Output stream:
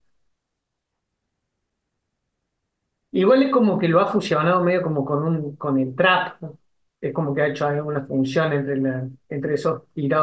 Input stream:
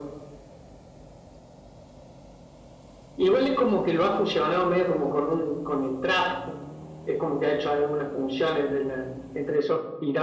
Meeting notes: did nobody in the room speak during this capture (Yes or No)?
Yes